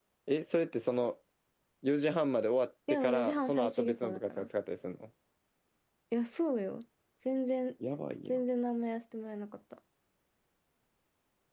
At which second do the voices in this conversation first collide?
3 s

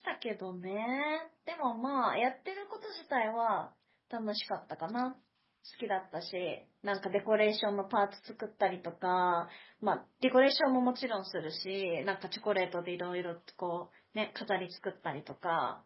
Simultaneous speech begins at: none

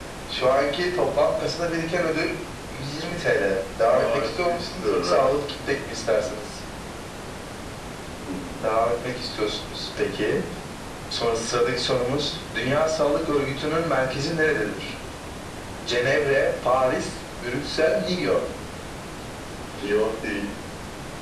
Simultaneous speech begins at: 4 s

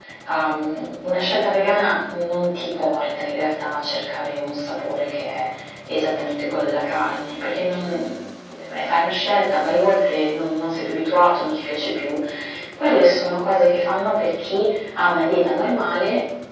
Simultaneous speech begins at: none

